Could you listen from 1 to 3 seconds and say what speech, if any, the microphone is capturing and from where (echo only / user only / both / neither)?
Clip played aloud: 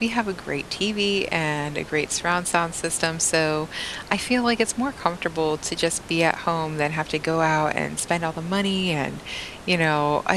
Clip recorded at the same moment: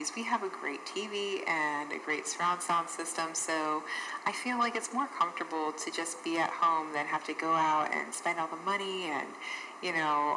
echo only